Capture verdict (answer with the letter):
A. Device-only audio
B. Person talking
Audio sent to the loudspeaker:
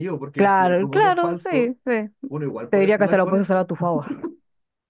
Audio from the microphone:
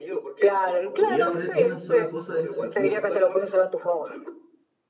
B